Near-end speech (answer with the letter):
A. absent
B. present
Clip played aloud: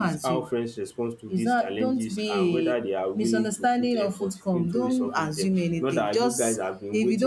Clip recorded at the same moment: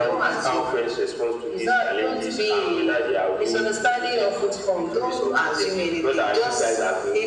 A